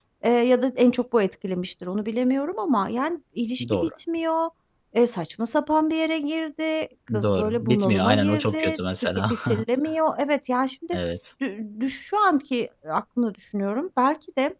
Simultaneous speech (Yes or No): Yes